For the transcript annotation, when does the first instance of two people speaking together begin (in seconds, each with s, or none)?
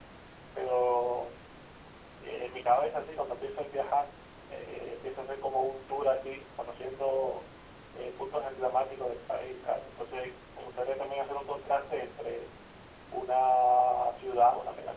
none